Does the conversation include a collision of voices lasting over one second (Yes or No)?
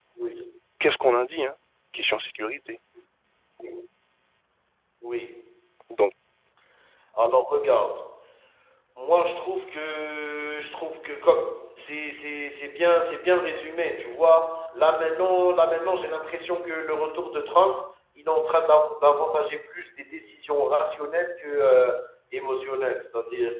No